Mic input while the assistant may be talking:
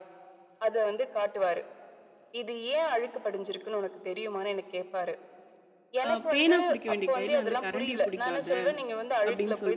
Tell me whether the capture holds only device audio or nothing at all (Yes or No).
No